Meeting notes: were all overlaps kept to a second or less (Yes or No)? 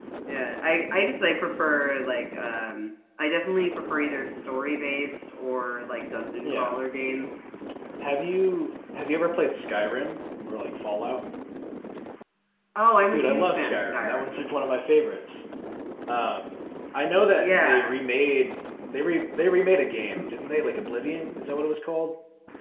No